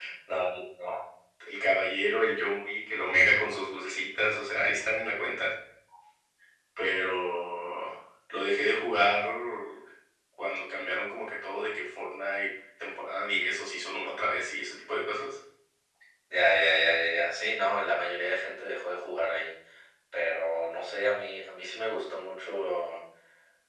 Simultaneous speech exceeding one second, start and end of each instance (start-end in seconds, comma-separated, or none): none